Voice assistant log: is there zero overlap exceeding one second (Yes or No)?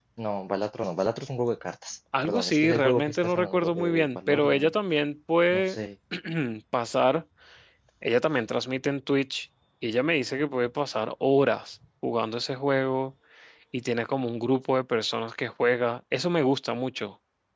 No